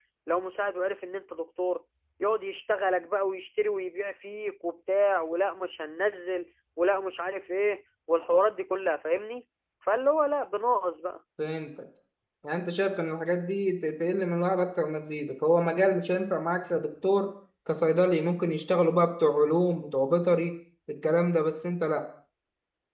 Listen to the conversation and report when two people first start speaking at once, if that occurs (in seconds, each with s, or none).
none